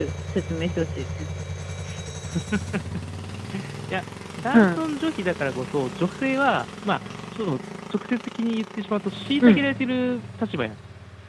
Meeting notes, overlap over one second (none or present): none